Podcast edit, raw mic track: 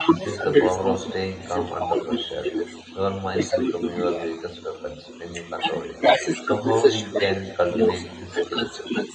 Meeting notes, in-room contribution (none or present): present